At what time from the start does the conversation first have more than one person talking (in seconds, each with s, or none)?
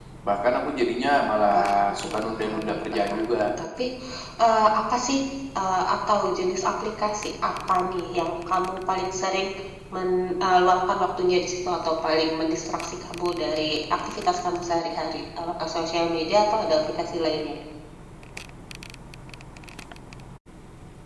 1.5 s